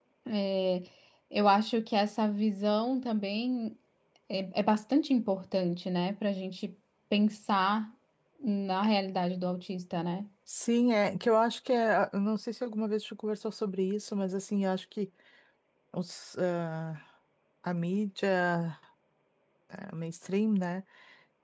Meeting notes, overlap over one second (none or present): none